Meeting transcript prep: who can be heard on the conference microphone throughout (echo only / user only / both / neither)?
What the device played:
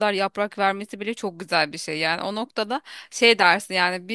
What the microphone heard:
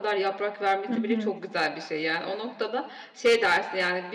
both